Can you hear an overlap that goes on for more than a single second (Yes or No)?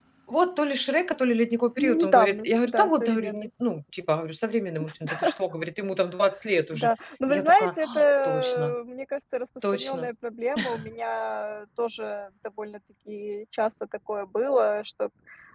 Yes